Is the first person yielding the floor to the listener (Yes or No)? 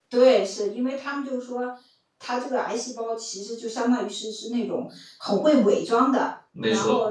No